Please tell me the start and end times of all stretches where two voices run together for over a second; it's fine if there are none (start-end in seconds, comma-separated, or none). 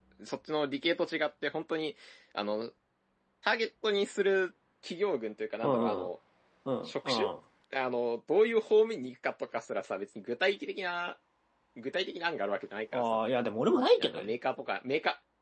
none